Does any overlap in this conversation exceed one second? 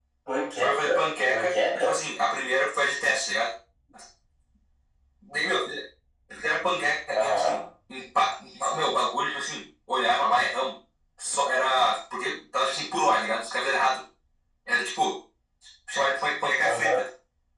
Yes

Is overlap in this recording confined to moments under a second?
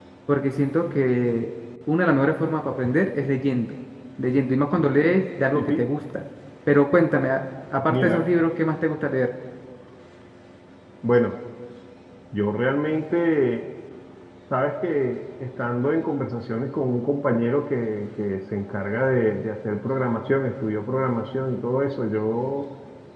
Yes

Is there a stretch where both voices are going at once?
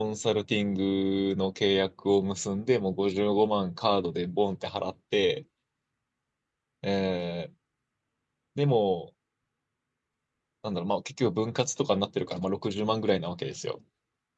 No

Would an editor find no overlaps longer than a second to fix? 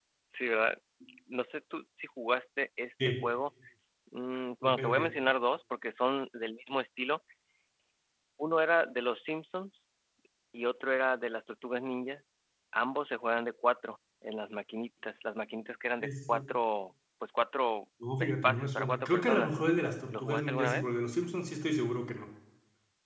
No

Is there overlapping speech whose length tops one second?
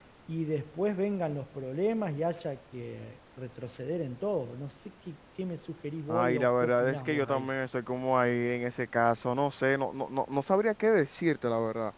Yes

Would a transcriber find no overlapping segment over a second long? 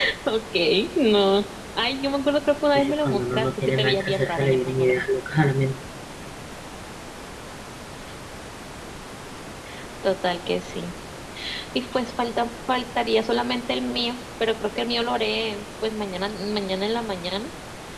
No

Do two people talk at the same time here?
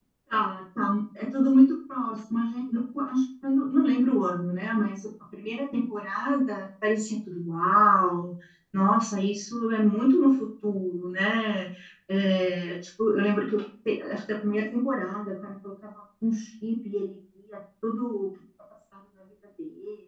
No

